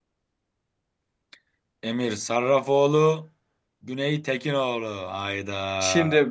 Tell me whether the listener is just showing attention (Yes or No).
No